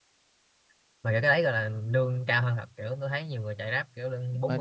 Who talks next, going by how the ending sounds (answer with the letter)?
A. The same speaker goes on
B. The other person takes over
B